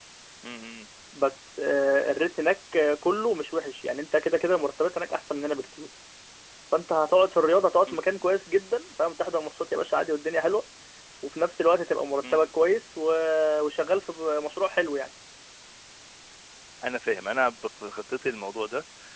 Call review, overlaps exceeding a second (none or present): none